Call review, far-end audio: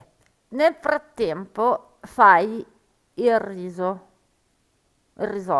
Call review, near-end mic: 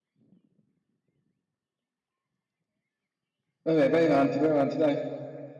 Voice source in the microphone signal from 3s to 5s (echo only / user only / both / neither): user only